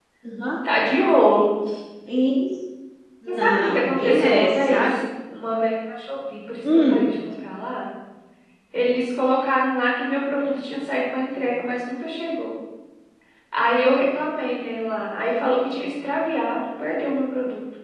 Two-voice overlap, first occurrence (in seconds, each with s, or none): 3.3 s